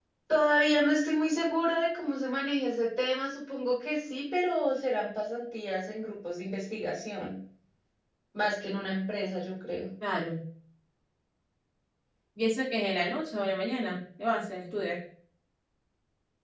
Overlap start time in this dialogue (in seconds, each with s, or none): none